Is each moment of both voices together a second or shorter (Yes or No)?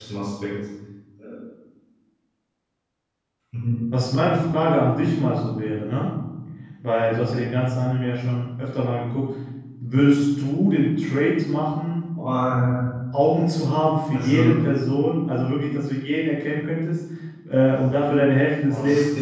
Yes